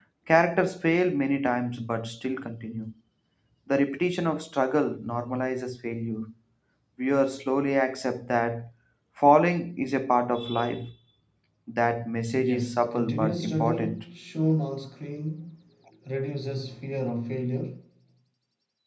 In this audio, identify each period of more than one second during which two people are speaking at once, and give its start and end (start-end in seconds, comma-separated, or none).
12.3-14.0